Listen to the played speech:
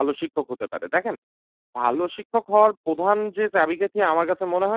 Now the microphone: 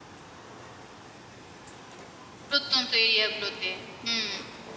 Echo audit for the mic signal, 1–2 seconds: neither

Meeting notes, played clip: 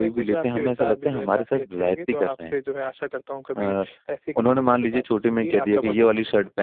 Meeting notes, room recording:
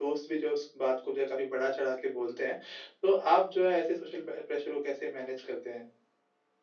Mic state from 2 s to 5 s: user only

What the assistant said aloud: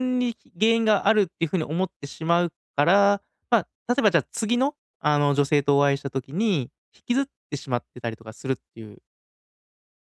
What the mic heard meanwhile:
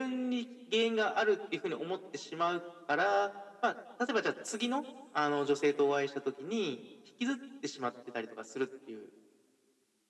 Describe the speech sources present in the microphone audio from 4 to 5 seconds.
echo only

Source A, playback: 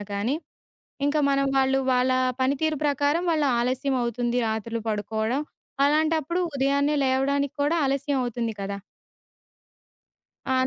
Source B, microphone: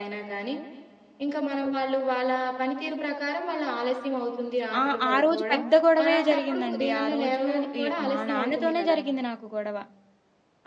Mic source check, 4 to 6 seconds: both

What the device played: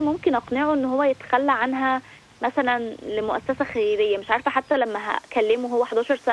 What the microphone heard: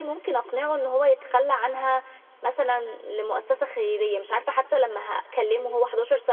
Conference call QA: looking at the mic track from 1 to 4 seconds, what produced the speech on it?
echo only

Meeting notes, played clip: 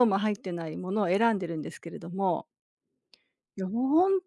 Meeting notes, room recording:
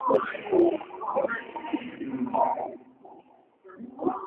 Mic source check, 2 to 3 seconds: both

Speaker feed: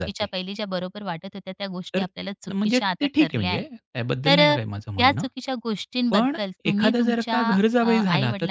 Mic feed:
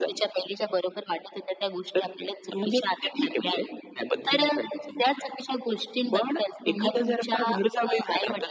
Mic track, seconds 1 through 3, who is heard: echo only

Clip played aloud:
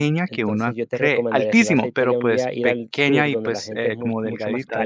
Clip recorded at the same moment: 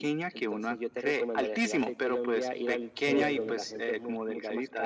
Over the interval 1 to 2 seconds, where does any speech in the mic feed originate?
echo only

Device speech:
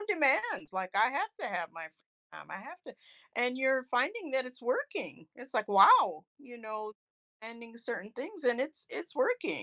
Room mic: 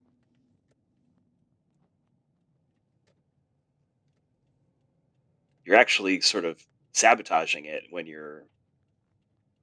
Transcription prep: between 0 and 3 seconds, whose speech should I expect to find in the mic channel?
neither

